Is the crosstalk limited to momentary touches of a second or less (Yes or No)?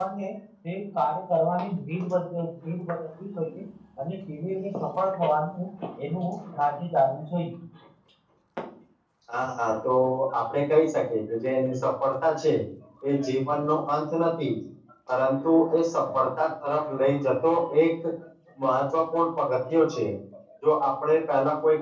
Yes